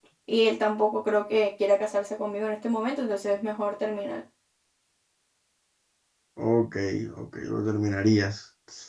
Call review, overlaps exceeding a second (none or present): none